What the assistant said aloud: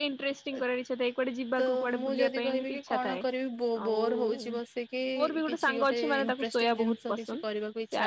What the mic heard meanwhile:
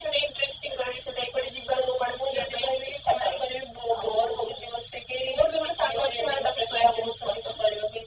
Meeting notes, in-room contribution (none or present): none